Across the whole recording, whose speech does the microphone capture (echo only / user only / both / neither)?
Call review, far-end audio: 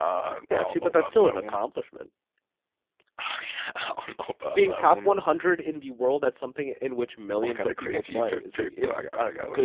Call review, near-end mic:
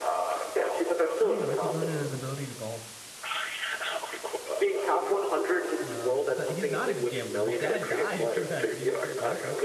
both